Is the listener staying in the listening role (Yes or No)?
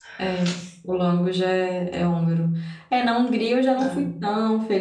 Yes